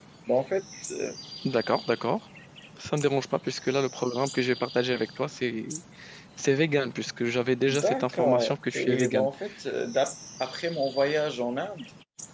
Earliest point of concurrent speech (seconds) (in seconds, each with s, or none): 7.7 s